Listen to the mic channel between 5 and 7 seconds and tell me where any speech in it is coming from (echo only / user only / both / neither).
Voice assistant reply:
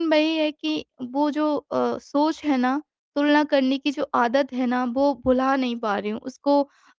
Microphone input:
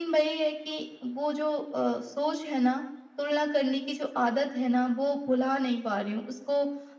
echo only